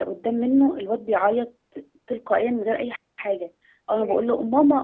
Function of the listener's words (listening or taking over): listening